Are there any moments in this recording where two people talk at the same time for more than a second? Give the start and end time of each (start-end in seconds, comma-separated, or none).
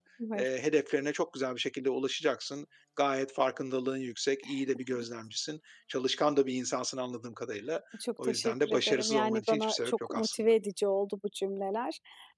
8.2-10.4